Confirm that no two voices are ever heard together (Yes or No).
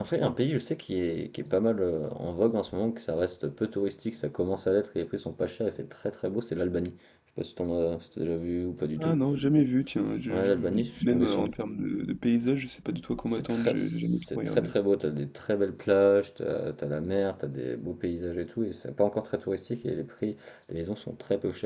No